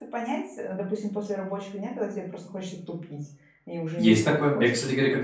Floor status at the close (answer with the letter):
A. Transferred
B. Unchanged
A